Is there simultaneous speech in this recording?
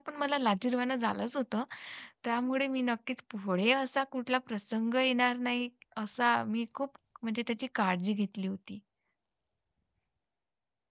No

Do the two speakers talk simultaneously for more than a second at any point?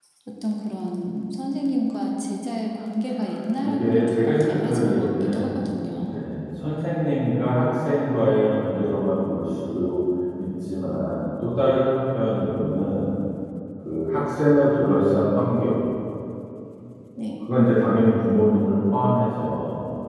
Yes, from 3.6 s

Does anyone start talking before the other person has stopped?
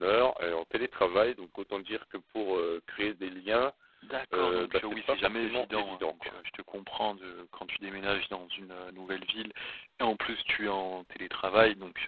Yes, from 4.3 s

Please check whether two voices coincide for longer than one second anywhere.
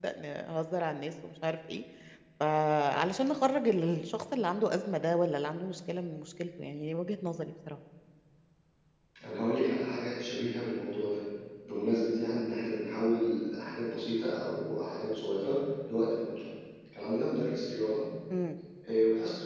No

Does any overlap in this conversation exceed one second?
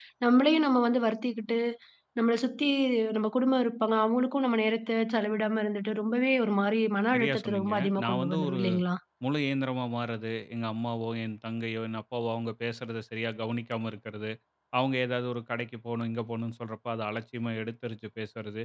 Yes, from 7.1 s

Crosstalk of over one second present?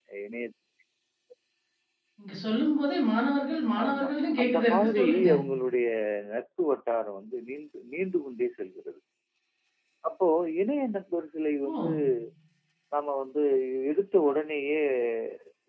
Yes, from 3.8 s

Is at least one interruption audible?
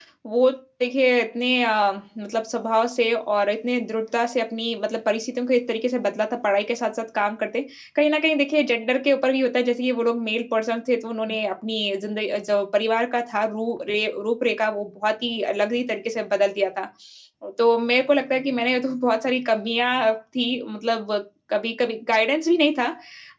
No

